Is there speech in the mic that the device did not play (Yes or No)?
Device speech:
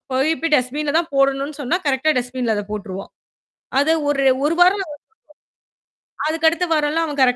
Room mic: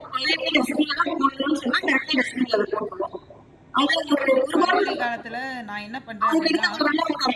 Yes